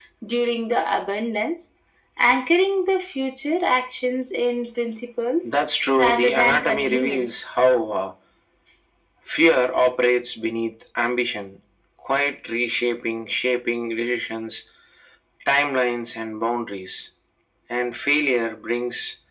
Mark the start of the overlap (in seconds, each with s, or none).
6.0 s